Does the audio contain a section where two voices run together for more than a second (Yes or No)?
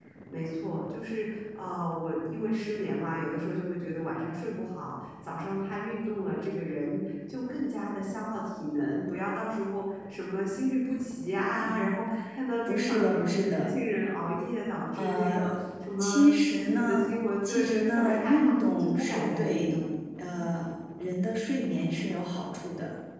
Yes